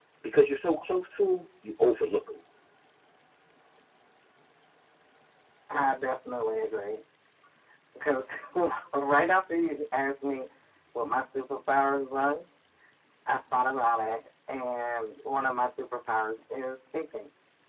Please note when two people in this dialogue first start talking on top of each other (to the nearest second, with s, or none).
none